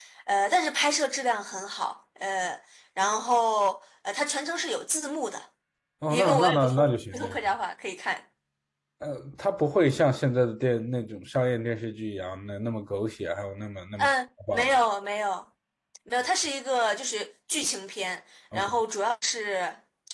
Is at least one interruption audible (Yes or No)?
Yes